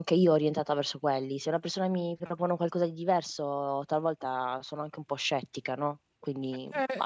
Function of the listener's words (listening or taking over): taking over